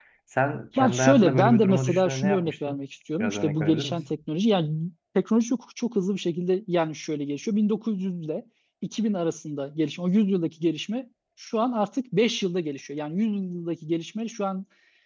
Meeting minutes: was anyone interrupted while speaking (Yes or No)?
Yes